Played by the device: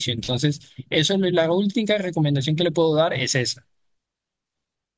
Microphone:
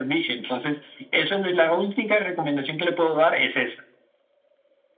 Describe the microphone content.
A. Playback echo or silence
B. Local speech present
A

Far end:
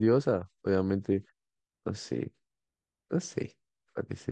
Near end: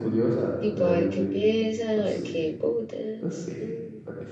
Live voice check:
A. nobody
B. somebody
B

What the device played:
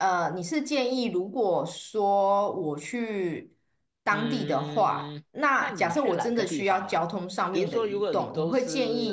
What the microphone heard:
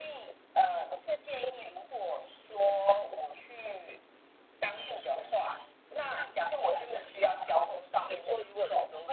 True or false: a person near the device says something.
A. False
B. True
A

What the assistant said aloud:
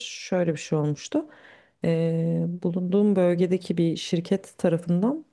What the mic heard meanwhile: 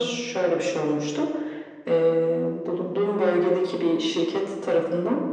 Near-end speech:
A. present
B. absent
B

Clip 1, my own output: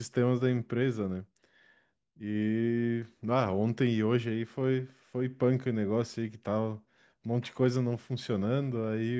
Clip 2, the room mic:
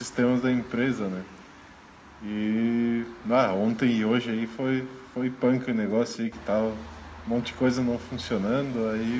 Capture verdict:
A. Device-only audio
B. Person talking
A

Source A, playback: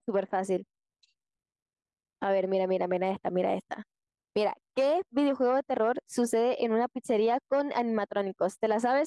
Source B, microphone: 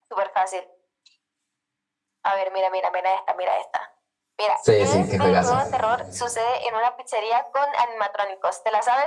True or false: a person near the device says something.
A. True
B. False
A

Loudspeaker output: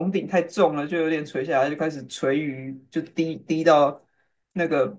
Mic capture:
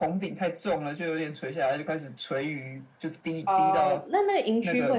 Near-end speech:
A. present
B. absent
A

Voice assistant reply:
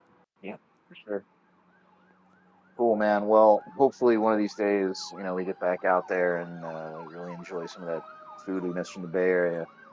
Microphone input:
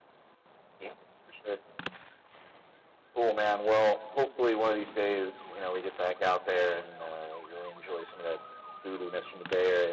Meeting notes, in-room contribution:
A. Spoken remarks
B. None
B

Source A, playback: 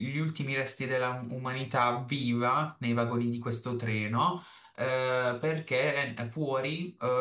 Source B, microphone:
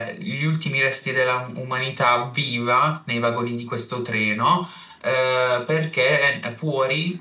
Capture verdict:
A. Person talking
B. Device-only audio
B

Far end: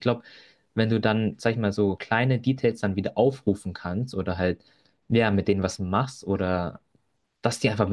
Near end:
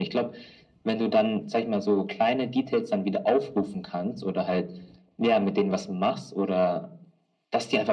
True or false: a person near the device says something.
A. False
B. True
A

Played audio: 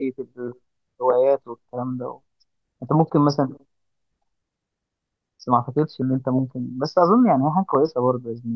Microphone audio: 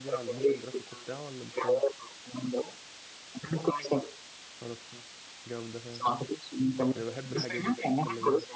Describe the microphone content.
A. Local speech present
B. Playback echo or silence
A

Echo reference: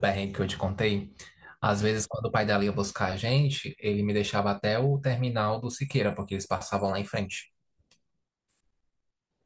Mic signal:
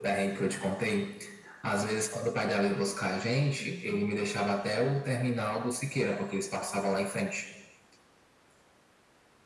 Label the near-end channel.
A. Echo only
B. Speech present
B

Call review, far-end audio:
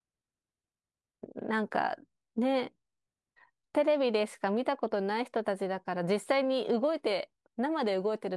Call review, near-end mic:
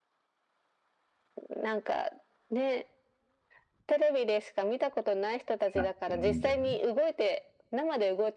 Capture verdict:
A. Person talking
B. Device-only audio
A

